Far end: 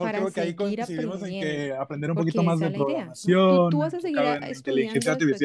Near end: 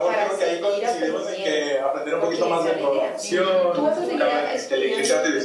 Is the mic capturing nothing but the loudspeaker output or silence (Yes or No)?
No